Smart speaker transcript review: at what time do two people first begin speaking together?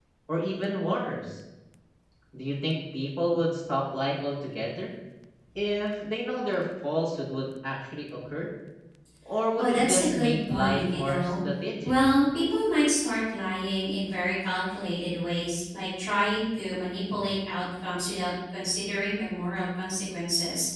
10 s

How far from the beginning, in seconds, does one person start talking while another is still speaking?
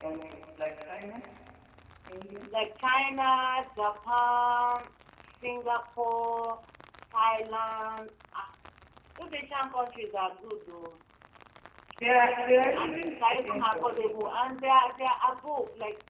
12 s

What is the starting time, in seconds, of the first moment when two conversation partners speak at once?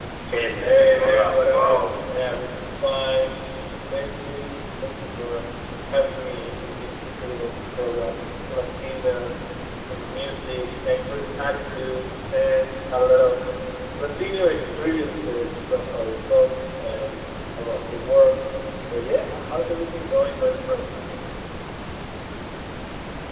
1 s

